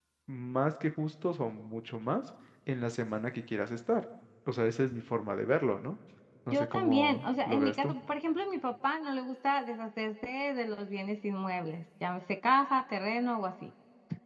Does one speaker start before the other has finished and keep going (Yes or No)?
Yes